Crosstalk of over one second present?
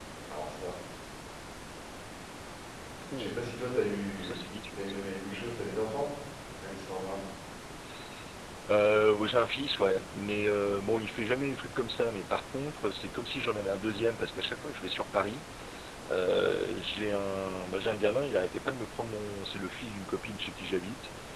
Yes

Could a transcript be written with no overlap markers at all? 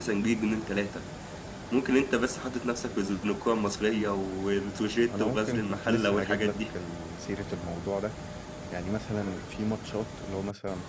No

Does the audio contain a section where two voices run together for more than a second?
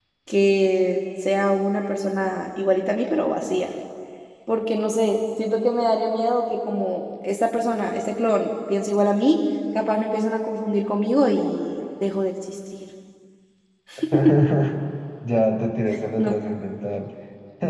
No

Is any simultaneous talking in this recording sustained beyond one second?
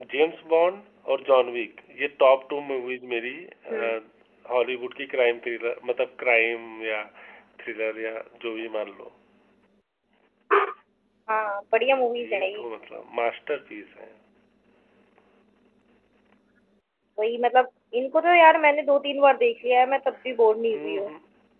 No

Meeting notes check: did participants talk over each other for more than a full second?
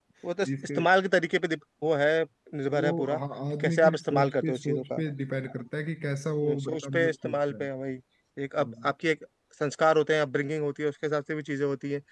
Yes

